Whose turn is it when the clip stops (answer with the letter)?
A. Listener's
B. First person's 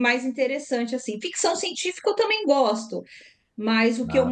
B